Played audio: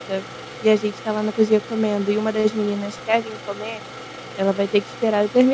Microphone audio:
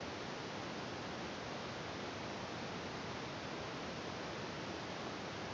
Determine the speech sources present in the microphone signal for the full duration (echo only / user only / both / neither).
neither